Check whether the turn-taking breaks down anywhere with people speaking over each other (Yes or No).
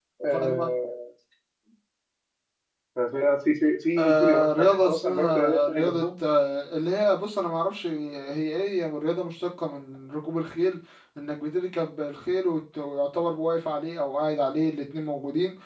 Yes